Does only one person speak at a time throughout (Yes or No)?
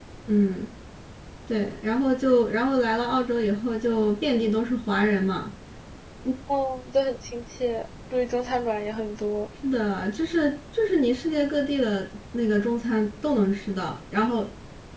Yes